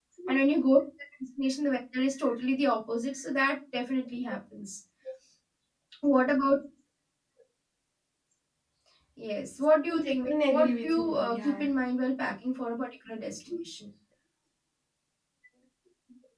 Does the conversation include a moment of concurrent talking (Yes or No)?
Yes